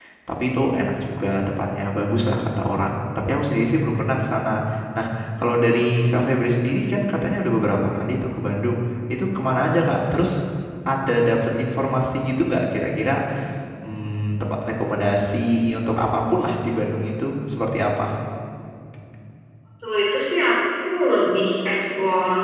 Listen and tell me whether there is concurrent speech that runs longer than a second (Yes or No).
No